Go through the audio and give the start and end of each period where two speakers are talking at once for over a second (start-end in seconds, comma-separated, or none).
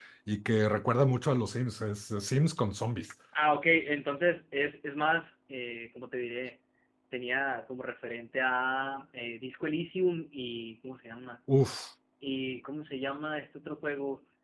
none